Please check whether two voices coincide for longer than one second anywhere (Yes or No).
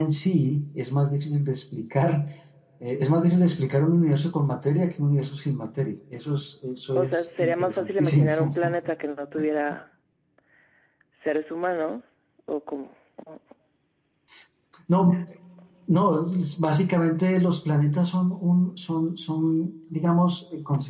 Yes